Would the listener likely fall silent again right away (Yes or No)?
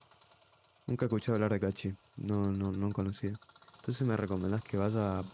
Yes